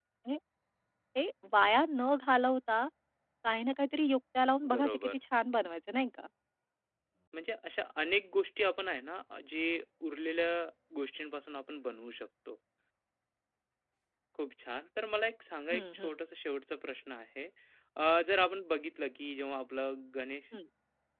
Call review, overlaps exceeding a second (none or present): none